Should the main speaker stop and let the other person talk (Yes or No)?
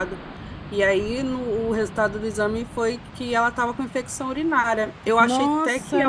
Yes